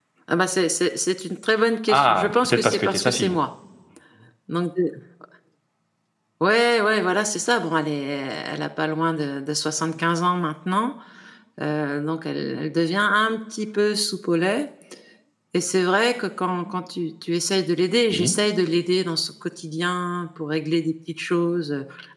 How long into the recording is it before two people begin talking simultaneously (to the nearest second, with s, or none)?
2 s